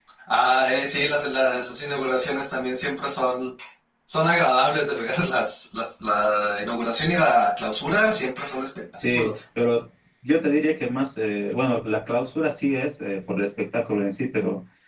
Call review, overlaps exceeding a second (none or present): none